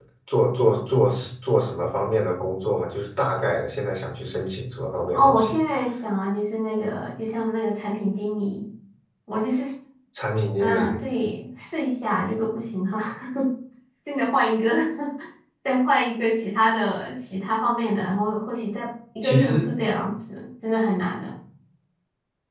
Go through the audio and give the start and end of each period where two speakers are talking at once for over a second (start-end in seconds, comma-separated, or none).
none